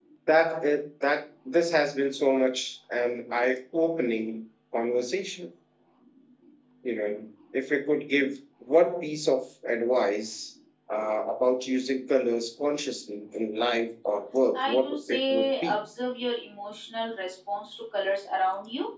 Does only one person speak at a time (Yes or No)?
No